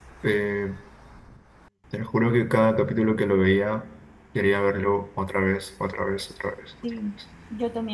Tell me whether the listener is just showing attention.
No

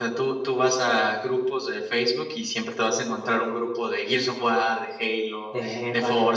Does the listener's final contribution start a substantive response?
No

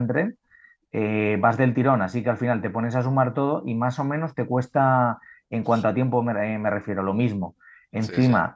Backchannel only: Yes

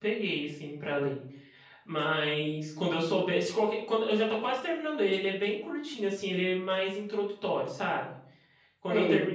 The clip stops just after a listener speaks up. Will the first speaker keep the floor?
Yes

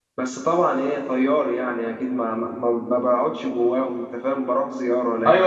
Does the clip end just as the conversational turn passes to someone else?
Yes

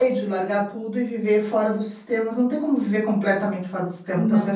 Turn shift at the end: No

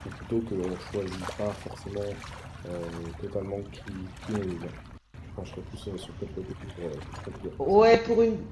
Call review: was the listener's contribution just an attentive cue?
No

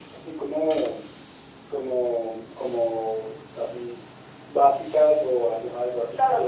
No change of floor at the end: No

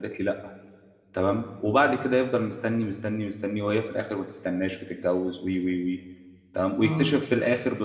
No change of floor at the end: Yes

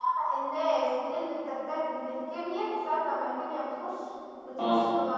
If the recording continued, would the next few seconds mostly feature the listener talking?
No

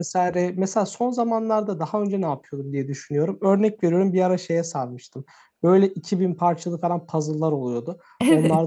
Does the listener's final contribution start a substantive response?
No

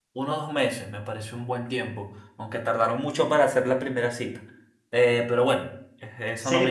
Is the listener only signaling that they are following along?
No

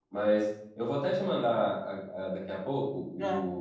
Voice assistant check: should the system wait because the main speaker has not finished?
Yes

